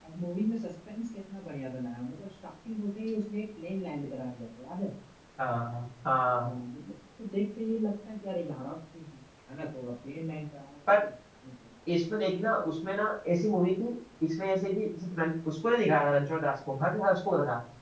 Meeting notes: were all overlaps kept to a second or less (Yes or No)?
Yes